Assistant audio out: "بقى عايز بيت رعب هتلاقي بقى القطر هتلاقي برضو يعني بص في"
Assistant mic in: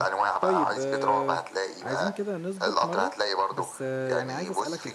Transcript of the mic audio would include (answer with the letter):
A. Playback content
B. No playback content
A